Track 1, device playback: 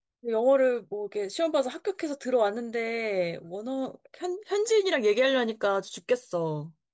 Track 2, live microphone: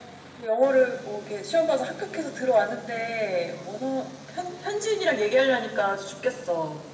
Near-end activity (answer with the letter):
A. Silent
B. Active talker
A